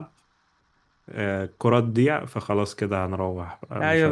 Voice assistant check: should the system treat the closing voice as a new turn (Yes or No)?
Yes